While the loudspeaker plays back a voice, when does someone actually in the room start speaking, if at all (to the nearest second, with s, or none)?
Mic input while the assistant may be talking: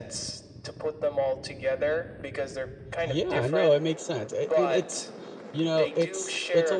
3 s